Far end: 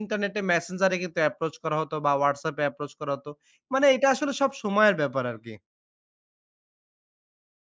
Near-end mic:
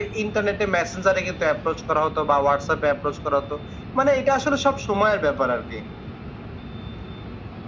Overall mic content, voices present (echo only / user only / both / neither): echo only